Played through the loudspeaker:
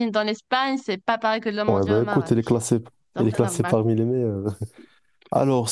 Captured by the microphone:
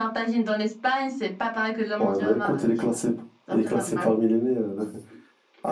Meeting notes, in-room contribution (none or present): none